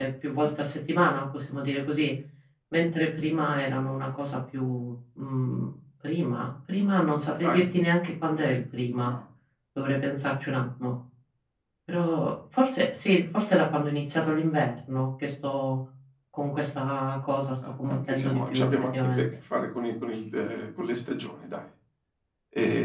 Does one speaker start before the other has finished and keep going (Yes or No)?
Yes